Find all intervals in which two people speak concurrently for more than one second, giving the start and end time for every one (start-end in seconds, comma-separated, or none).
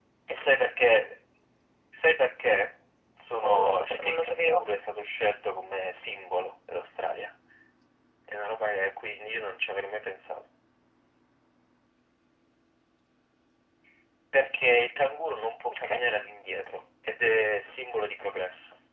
3.4-4.6